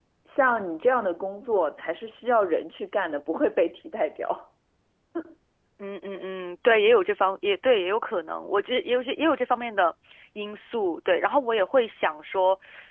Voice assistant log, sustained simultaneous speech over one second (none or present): none